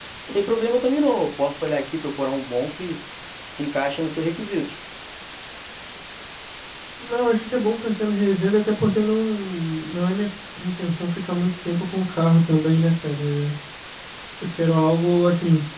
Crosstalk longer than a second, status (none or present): none